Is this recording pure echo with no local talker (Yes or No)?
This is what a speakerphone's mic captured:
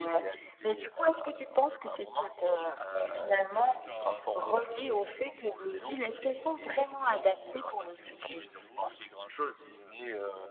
No